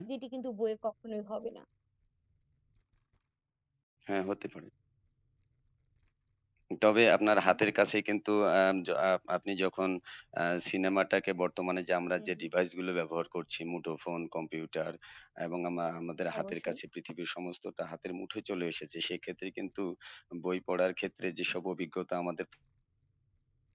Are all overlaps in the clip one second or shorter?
Yes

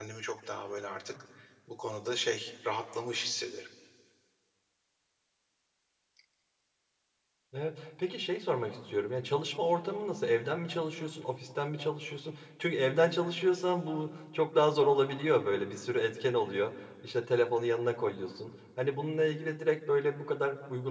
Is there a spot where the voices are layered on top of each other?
No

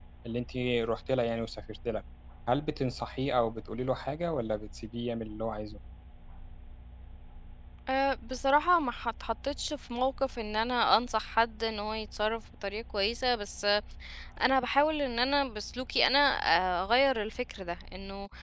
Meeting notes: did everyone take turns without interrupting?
Yes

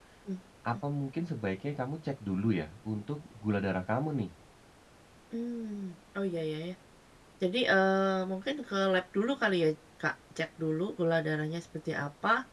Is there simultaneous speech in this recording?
No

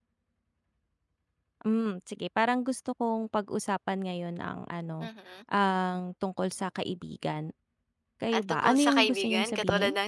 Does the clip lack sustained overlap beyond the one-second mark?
No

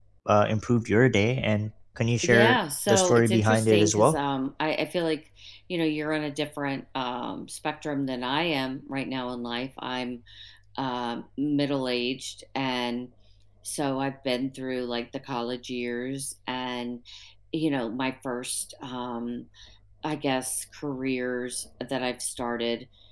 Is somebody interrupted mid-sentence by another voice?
Yes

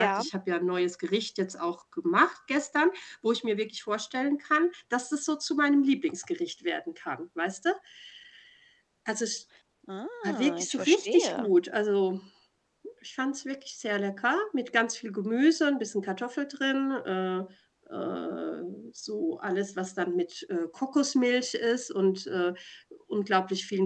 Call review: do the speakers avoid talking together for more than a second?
No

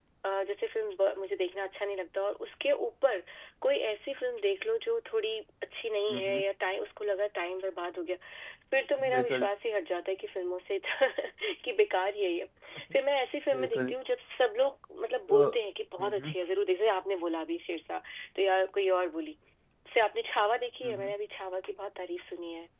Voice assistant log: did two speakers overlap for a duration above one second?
No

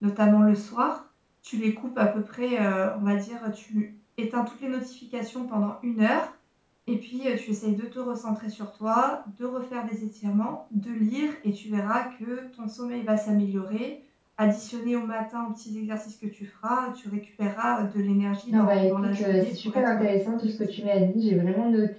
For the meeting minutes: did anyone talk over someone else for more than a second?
Yes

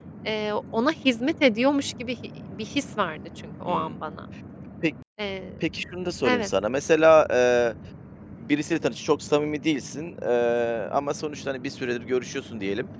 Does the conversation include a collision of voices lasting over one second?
No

